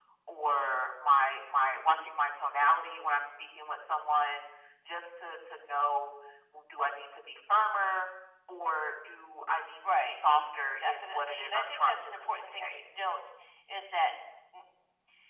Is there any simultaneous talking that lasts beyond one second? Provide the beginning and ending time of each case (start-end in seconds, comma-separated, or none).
10.8-12.7